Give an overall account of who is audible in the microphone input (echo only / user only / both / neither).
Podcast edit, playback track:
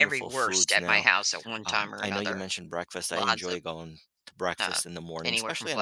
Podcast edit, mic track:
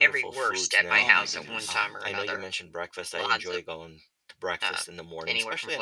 both